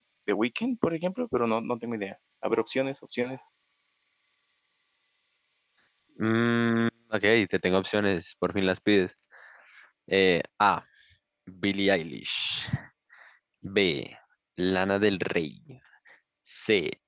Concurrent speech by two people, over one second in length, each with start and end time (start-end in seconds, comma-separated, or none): none